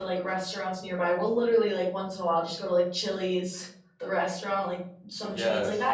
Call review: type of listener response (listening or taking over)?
listening